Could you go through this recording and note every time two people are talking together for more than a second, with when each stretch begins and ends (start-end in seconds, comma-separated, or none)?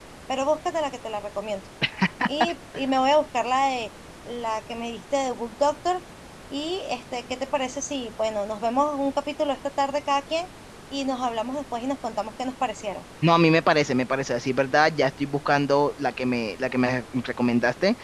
none